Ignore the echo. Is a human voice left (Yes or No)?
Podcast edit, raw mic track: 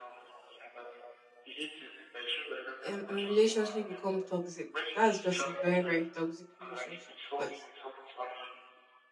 Yes